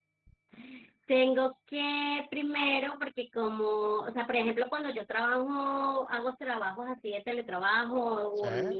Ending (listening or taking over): listening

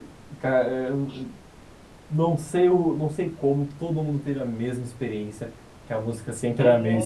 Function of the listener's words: listening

